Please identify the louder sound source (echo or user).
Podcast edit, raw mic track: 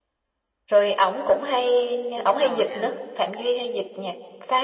echo